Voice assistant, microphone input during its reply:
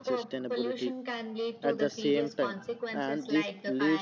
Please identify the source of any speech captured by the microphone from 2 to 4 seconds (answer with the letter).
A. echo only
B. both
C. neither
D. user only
B